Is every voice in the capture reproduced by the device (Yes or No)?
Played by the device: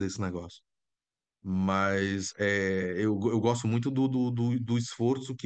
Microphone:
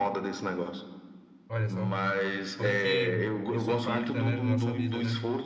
No